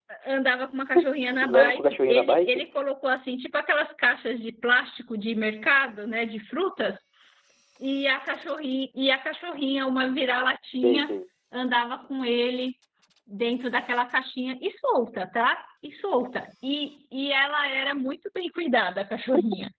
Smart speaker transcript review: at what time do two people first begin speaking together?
1.4 s

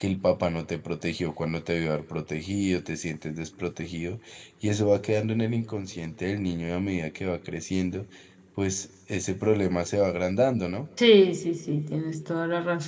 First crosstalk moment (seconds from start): none

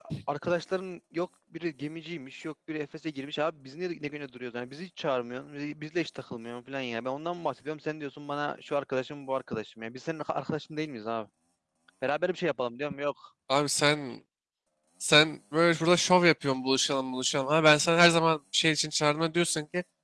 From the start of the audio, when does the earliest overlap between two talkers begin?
none

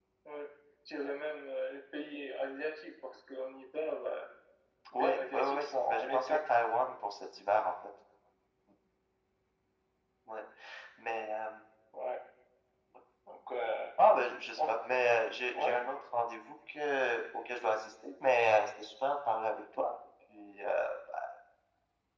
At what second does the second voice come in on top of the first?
5.0 s

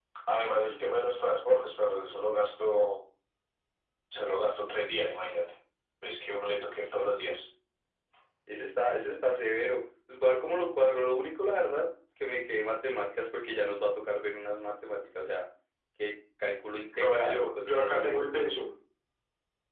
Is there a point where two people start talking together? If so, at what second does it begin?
16.9 s

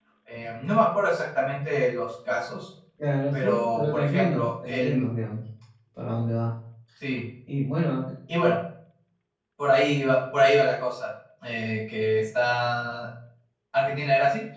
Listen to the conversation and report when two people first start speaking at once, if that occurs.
3.3 s

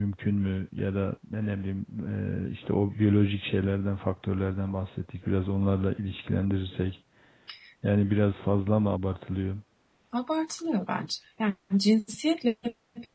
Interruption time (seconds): none

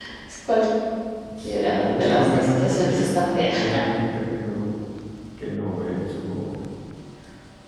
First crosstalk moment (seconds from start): 1.4 s

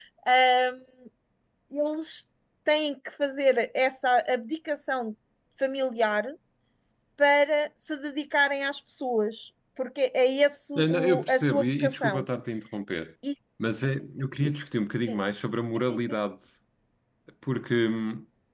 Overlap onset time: 10.8 s

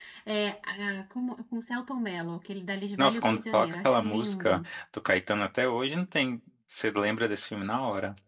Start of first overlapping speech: 3.0 s

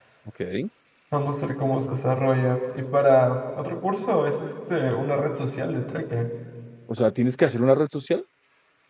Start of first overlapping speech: none

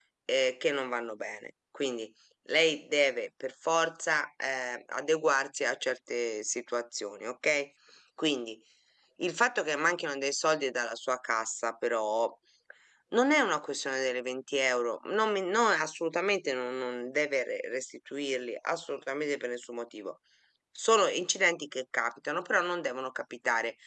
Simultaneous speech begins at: none

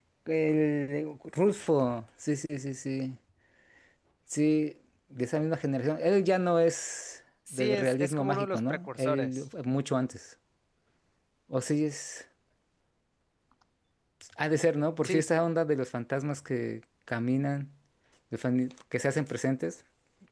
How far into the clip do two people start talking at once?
7.5 s

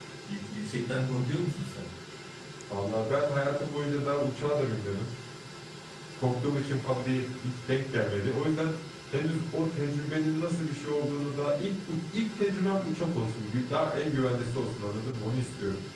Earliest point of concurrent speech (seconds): none

